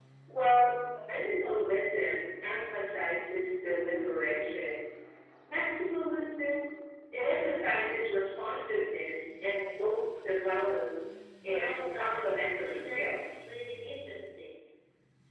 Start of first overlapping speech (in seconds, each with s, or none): 11.4 s